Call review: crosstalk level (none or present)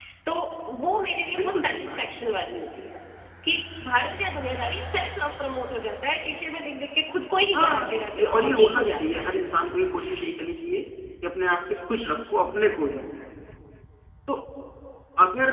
present